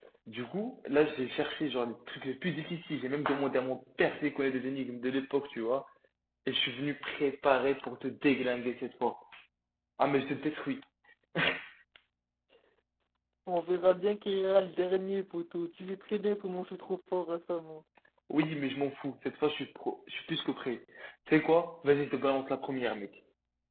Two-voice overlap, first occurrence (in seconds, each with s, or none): none